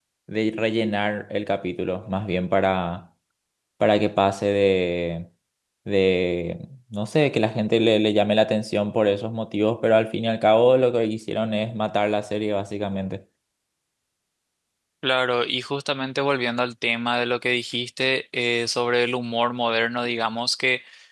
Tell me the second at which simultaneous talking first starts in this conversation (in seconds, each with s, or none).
none